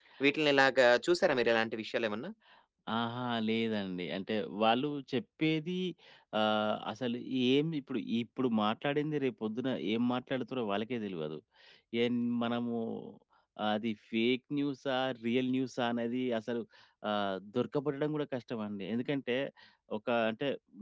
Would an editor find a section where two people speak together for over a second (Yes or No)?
No